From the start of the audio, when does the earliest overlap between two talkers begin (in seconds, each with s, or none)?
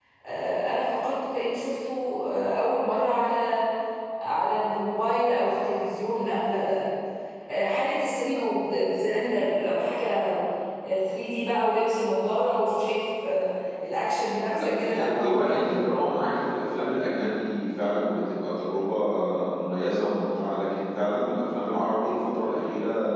14.5 s